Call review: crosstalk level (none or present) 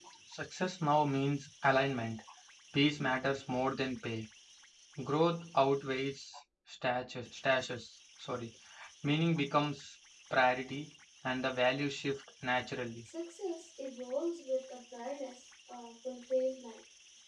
none